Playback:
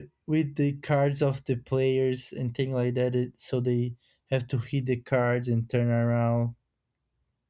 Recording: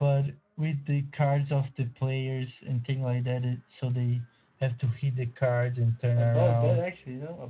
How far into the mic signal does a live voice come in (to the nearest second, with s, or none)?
6 s